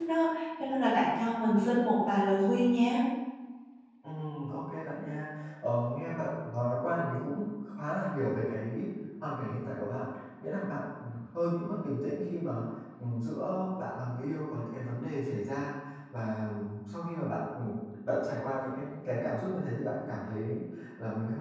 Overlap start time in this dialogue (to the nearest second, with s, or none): none